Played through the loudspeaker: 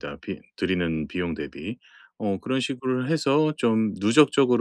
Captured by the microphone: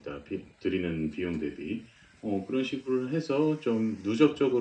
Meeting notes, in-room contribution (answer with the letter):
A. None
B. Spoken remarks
A